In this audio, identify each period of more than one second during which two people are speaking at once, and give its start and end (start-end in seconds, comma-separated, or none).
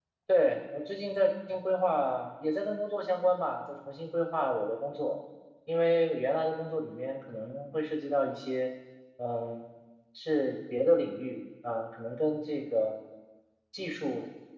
none